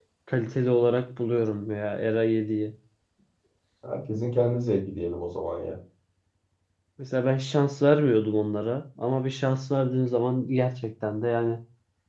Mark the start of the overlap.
none

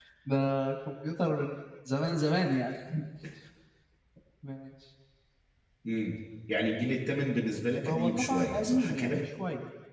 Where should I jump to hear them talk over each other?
8 s

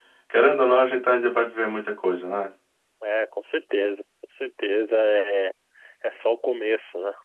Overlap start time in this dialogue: none

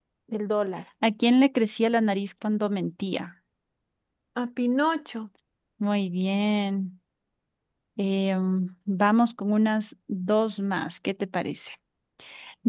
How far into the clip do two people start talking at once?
none

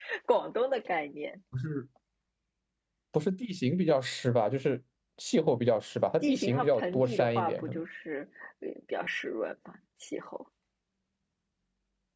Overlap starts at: 6 s

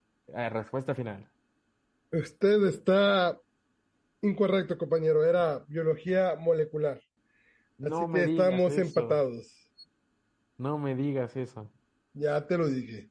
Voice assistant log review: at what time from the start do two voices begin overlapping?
8 s

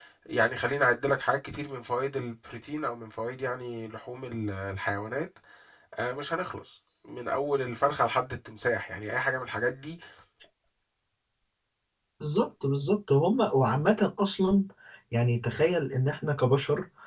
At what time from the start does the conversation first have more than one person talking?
none

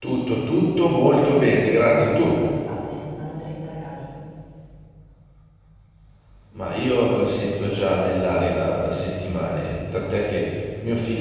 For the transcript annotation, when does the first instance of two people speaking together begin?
1 s

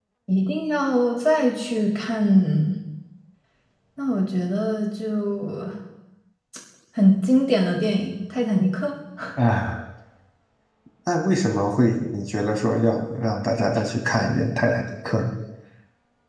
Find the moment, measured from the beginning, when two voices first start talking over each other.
none

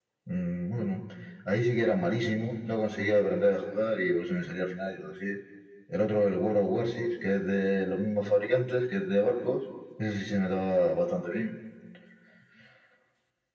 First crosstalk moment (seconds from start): none

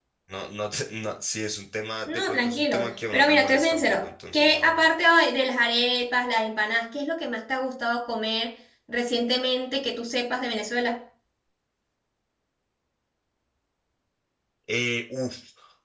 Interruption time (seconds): 2 s

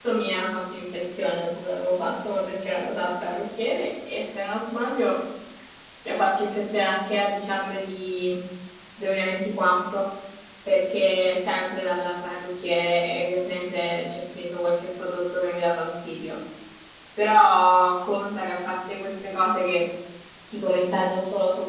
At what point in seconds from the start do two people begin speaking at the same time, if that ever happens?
none

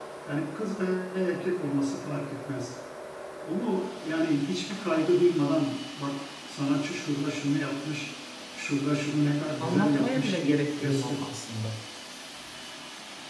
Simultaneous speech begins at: 10 s

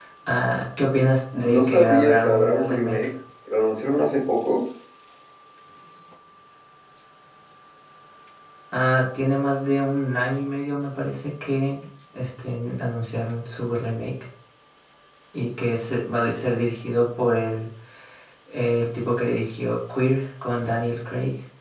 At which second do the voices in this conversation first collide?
1 s

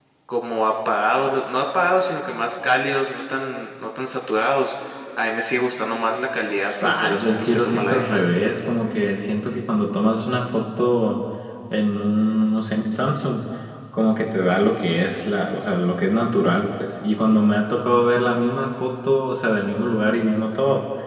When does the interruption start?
7 s

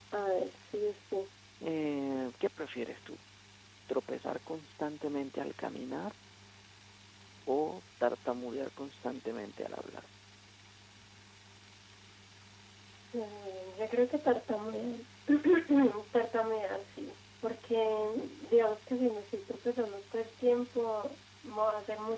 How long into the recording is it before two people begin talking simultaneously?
none

